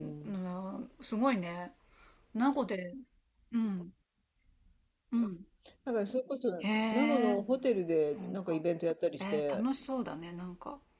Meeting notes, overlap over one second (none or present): none